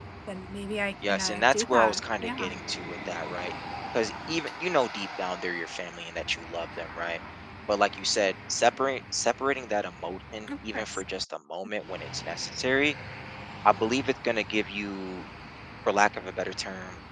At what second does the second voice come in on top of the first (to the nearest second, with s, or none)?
1 s